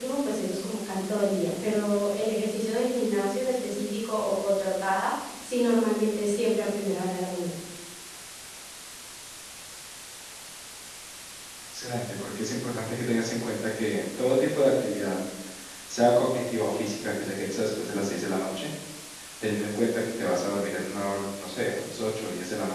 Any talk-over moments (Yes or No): No